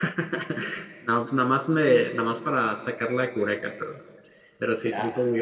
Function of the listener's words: taking over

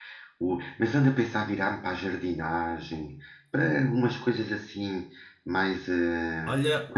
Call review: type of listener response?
taking over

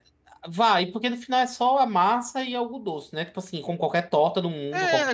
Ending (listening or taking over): taking over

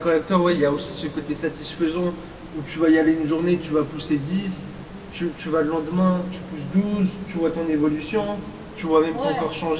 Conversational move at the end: listening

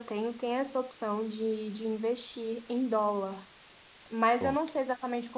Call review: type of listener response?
listening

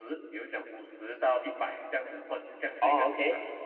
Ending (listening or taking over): taking over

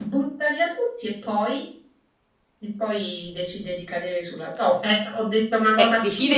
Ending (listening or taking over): taking over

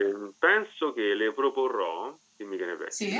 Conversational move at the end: listening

